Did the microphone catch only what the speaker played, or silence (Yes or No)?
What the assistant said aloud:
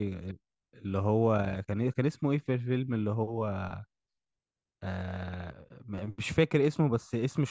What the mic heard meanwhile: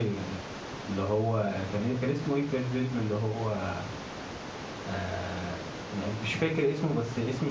Yes